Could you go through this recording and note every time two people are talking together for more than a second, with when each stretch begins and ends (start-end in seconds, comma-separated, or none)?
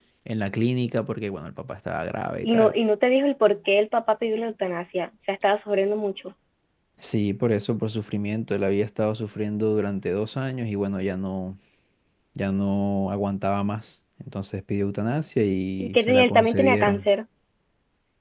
15.8-17.0